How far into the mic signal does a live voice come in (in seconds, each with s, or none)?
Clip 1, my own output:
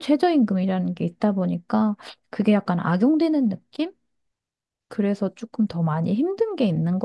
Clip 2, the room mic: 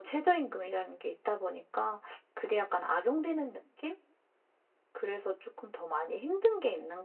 none